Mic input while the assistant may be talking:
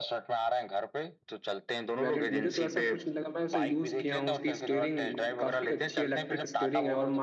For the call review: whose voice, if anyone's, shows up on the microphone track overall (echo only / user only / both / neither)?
both